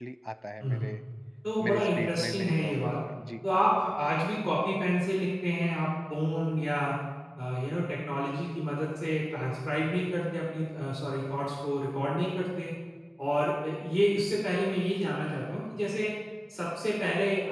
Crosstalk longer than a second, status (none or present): present